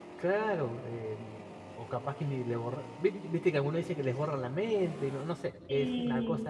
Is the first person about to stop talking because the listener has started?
No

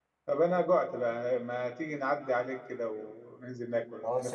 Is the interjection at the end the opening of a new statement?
Yes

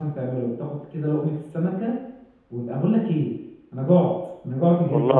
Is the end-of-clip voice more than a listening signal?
No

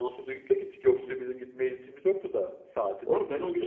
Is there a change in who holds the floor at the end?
Yes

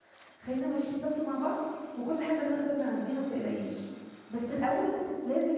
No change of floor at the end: Yes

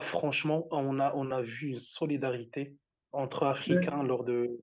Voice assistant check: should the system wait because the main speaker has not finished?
Yes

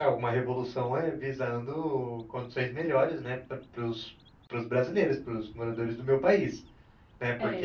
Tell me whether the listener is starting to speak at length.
Yes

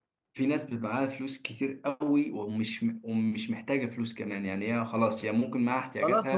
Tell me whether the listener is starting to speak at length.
Yes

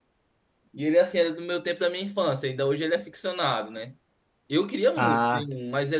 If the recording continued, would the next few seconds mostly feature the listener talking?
No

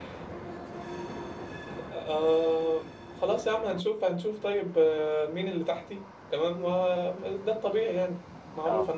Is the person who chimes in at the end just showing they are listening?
Yes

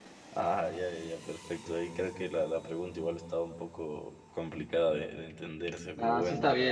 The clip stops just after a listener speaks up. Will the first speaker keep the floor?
No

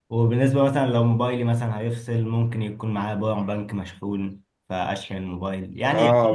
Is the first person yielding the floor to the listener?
Yes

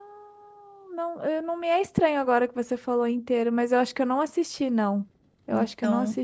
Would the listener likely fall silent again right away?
No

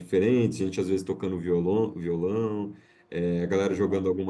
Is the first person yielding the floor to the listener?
No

